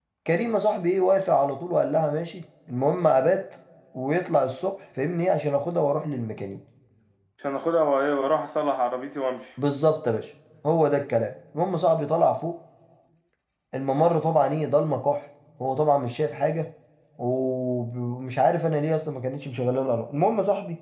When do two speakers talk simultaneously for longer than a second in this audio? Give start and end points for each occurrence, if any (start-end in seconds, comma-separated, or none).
none